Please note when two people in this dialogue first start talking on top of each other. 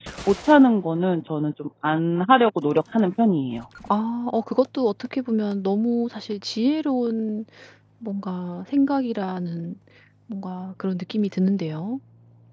none

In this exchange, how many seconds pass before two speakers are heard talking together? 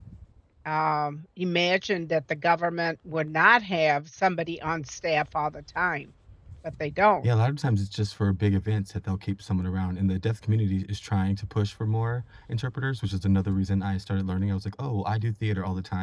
none

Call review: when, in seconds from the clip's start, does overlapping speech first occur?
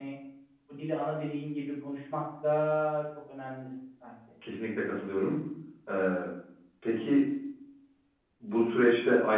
none

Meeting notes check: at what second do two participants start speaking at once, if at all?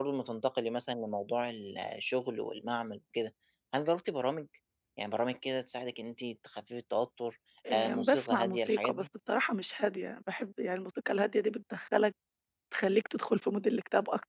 8 s

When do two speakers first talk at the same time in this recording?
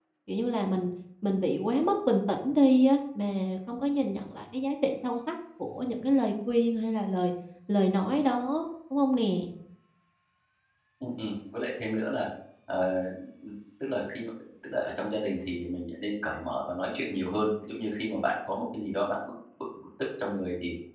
none

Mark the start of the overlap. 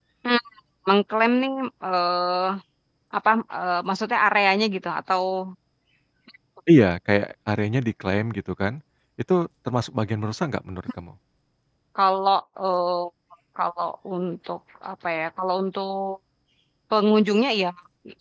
none

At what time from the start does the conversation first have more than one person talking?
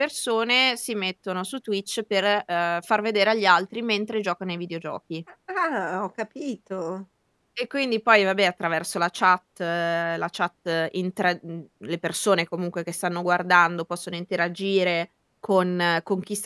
none

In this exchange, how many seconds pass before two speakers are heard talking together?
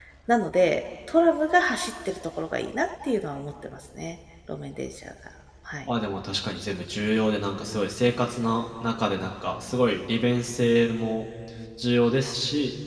none

